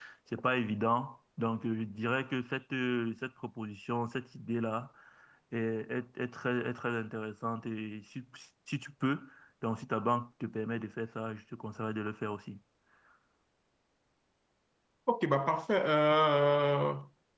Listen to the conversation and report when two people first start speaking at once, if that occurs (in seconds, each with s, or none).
none